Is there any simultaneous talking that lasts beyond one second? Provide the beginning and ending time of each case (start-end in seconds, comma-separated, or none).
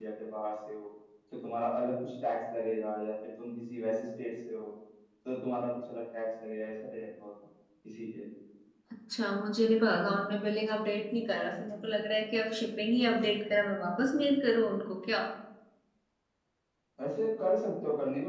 none